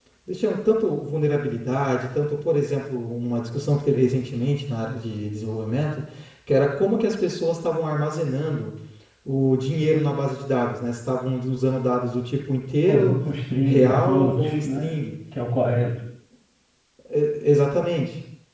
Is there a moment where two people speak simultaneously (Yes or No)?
Yes